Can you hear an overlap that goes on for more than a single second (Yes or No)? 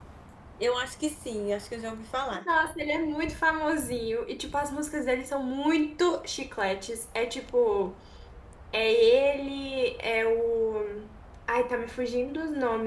No